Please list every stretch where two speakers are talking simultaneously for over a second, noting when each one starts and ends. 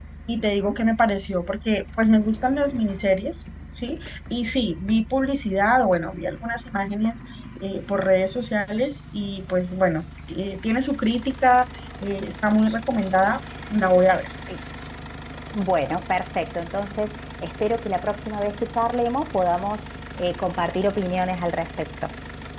none

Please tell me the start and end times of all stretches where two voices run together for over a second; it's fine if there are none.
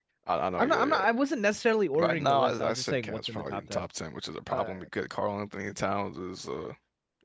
2.0-3.8

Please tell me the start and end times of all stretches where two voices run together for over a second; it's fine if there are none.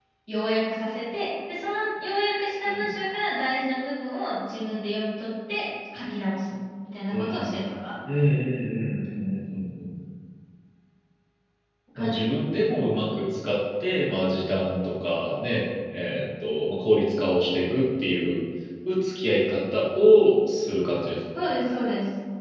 none

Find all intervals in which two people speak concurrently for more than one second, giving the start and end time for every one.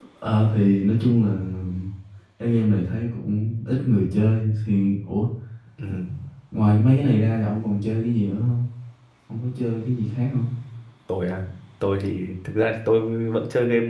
none

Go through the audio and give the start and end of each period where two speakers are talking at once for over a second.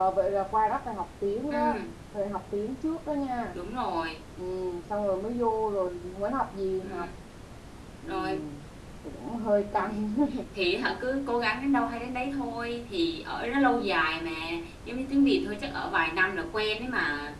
none

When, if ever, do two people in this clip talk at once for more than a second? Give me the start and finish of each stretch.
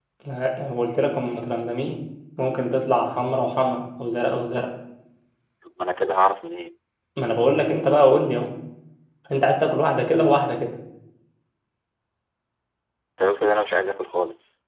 none

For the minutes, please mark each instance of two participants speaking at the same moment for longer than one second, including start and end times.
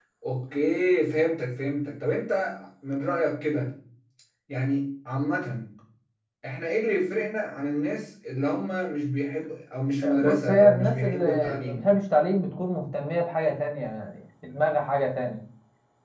10.0-11.9

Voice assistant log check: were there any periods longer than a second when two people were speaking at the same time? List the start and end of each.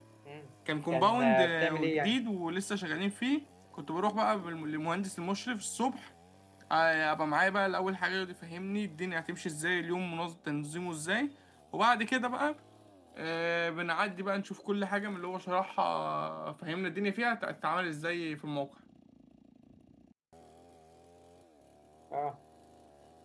0.9-2.2

